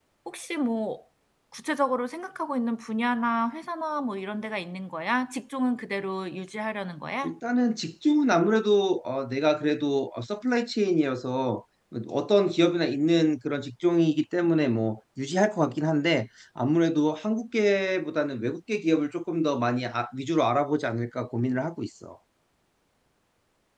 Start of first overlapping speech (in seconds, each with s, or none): none